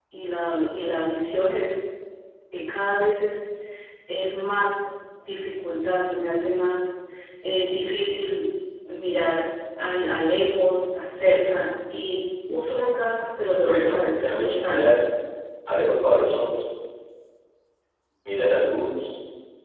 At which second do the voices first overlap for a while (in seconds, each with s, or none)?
13.5 s